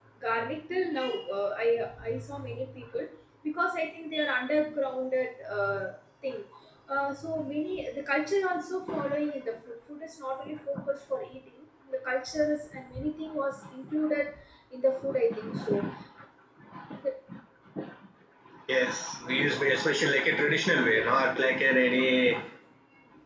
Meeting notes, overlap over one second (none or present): none